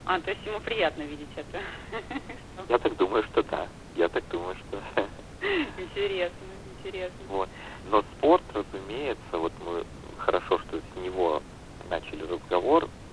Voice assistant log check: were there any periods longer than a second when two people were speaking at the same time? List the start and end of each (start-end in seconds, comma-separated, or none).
none